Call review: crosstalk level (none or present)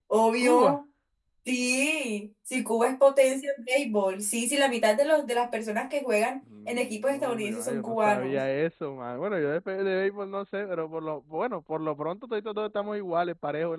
present